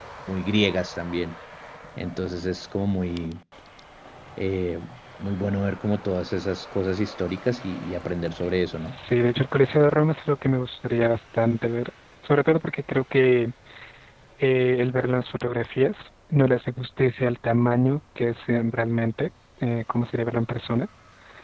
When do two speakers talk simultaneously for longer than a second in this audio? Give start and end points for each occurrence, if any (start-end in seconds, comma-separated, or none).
none